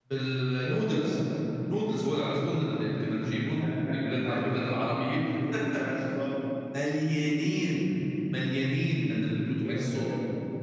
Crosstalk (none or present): present